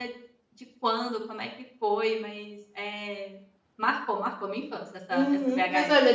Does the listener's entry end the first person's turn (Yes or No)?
Yes